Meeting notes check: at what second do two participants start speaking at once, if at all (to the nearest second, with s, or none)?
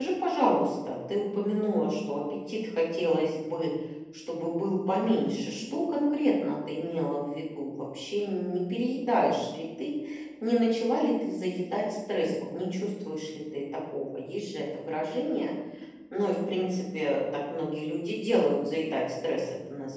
none